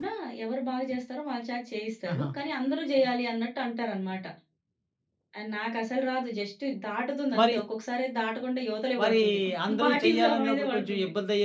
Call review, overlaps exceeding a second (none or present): present